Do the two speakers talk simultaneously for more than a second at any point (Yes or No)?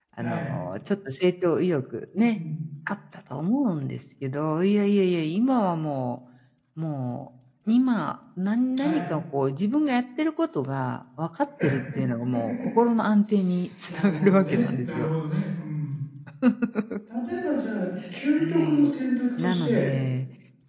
Yes